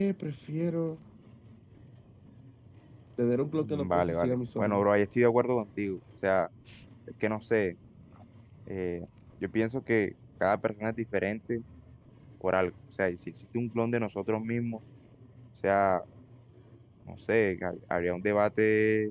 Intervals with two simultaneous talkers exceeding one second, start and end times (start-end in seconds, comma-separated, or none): 3.6-4.9